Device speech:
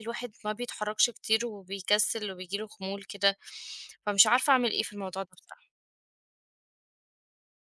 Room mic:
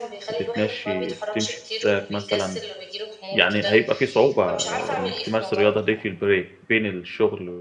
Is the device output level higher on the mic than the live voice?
No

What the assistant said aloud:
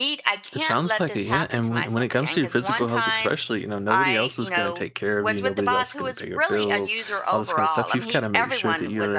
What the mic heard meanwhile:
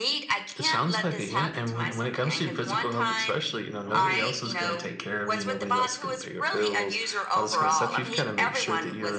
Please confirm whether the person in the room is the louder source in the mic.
No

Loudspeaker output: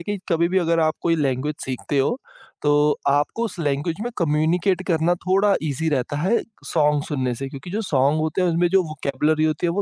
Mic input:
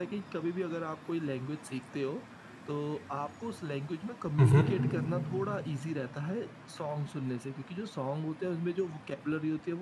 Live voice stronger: Yes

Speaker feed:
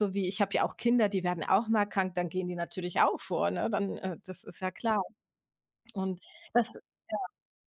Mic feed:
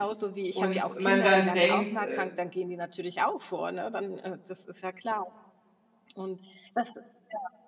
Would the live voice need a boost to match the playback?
No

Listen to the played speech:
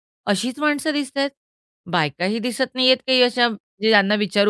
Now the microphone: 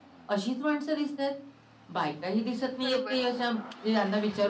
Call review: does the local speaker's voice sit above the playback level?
No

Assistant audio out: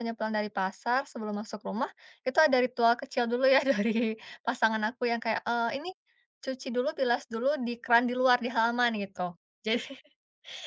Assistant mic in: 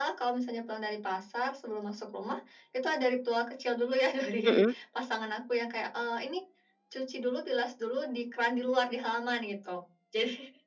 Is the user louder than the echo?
Yes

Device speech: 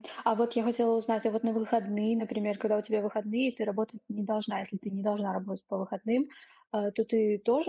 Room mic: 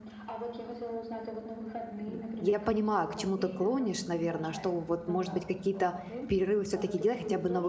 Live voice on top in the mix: Yes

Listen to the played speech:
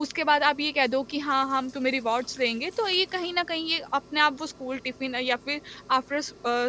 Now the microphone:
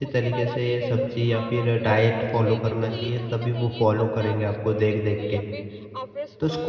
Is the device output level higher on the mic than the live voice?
No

